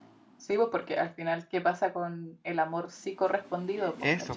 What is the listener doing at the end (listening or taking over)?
taking over